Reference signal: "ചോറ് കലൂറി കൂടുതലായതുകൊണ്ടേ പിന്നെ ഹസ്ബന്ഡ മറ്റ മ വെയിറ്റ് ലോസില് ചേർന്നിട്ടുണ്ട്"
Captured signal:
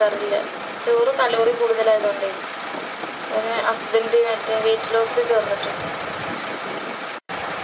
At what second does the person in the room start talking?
none

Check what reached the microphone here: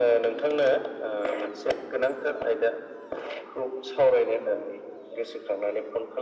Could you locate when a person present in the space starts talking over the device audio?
none

